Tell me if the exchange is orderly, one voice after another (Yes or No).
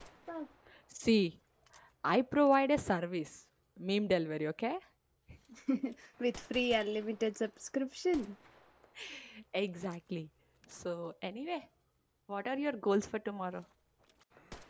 Yes